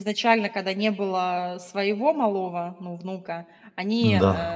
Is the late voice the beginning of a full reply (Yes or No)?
No